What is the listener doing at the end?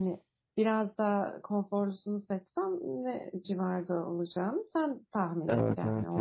taking over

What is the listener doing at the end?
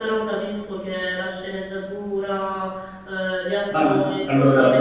taking over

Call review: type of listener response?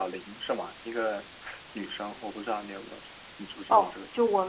taking over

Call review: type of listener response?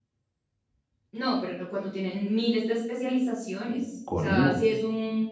listening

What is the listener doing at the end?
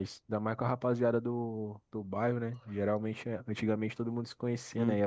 listening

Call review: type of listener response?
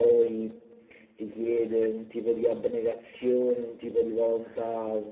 listening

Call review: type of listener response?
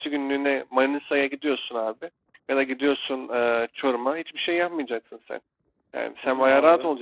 listening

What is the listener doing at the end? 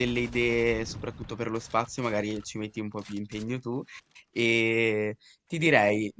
listening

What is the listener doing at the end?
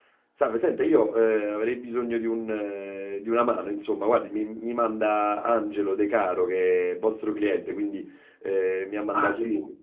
taking over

